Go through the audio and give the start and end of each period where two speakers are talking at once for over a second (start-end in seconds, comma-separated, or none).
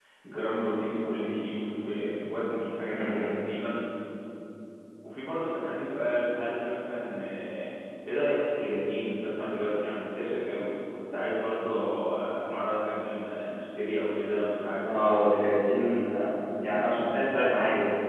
none